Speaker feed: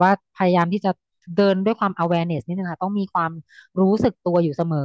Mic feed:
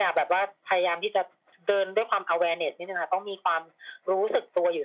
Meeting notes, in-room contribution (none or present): none